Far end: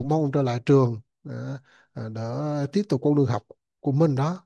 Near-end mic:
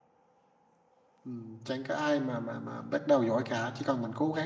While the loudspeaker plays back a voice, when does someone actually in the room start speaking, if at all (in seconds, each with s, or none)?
1.2 s